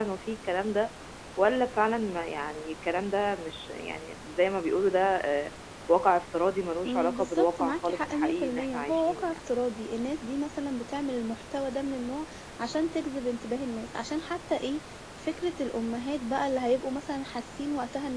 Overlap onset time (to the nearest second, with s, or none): 7 s